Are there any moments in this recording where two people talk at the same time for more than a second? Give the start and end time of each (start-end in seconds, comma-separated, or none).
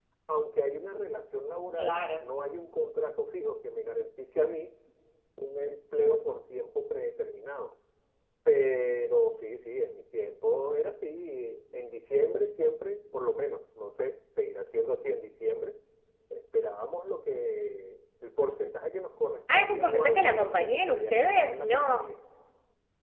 19.5-22.1